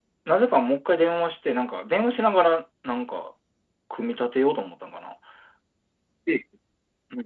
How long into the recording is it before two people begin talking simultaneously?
none

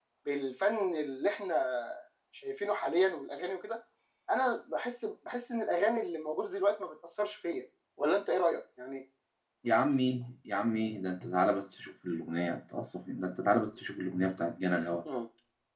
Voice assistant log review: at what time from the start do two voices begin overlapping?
none

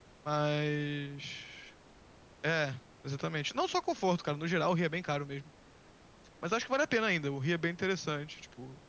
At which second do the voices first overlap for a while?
none

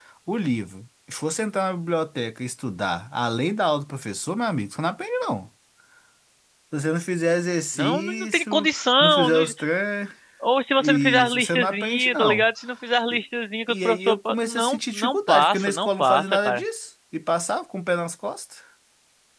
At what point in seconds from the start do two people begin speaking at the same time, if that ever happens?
7.8 s

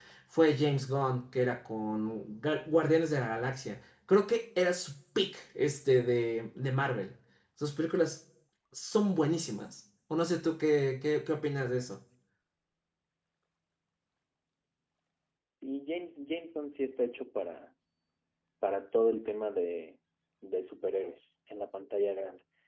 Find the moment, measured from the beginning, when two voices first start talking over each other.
none

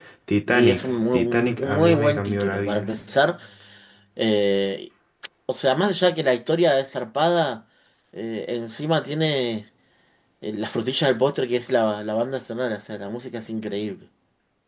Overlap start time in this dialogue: 0.5 s

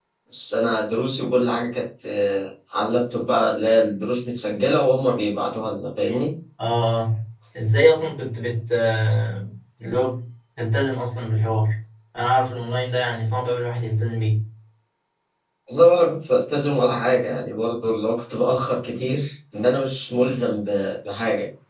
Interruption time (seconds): none

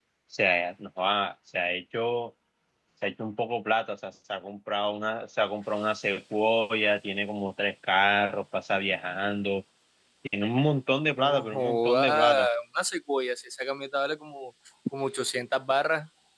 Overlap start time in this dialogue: 11.2 s

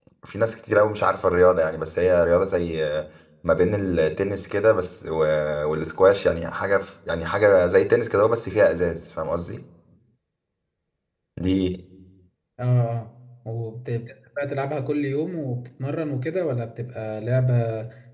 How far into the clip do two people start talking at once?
none

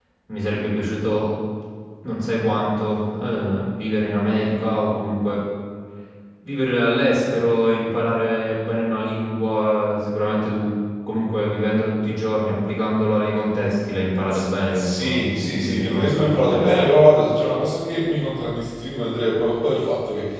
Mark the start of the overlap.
14.7 s

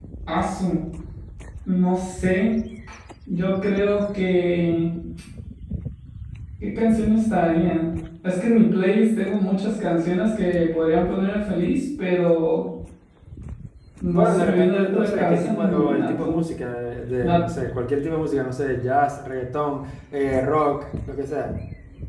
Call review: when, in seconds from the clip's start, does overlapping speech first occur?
14.1 s

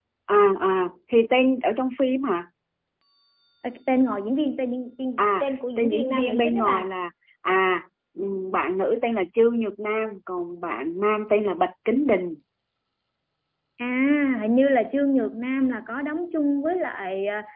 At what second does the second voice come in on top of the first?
5.2 s

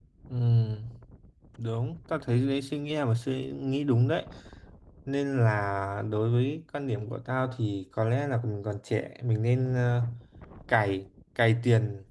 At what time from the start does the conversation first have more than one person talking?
none

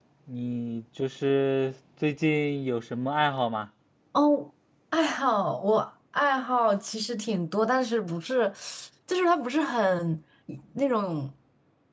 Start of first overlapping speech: none

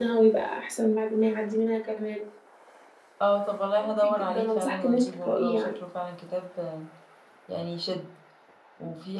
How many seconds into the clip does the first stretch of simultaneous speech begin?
3.8 s

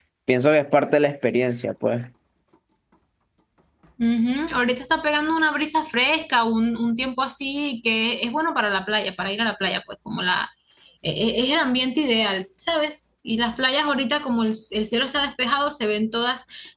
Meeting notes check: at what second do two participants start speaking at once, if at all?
none

